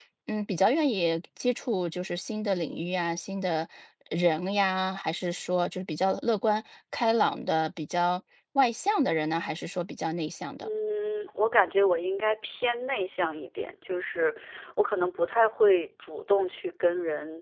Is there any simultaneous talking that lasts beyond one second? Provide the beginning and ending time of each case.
none

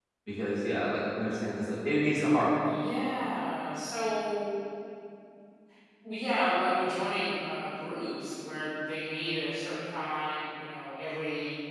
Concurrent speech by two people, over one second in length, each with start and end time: none

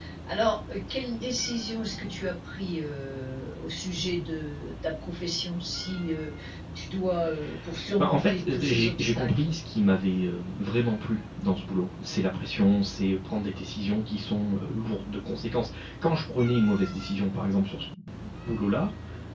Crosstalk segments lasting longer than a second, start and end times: 8.0-9.5

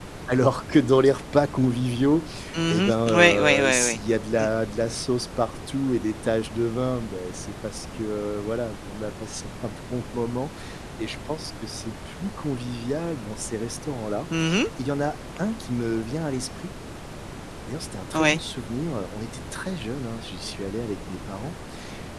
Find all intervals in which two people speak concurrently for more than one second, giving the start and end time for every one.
2.7-4.0

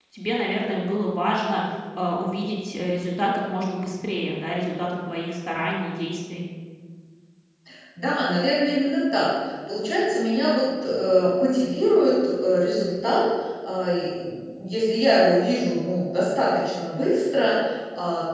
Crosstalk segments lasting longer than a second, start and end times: none

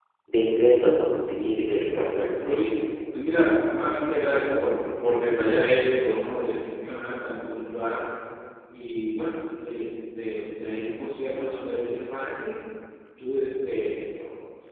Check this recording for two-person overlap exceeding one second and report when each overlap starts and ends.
1.4-2.6

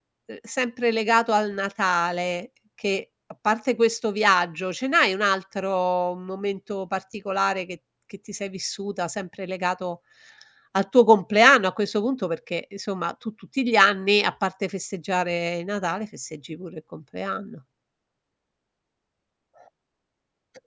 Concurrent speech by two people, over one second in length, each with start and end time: none

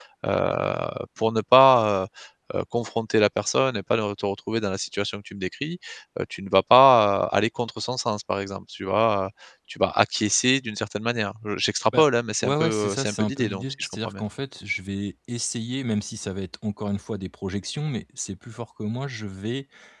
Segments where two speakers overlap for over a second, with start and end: 12.4-14.2

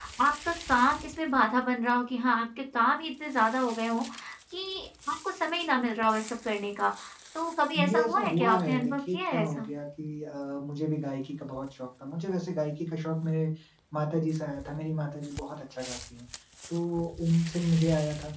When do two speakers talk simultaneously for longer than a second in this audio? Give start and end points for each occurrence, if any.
7.9-9.7

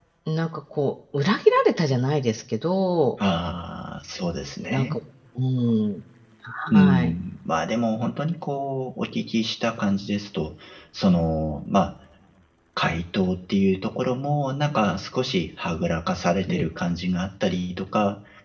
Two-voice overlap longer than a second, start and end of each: none

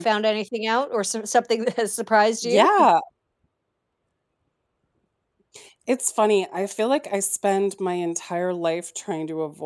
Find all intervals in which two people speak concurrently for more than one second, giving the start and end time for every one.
none

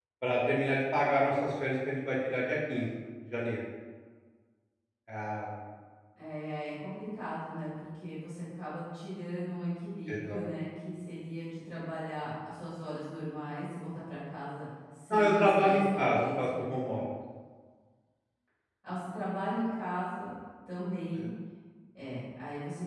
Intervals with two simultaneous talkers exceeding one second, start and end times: 15.1-16.7

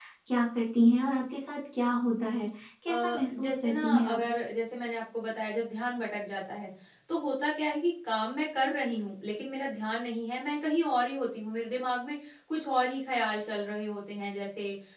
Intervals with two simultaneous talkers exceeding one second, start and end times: 2.9-4.2

